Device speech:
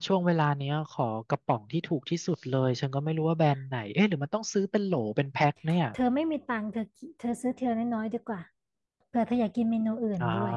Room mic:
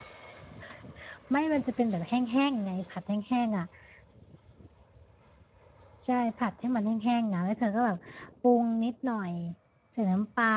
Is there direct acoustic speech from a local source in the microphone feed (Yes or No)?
Yes